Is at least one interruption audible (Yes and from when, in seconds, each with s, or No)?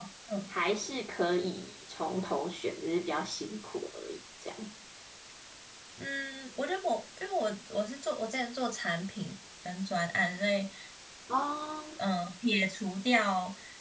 No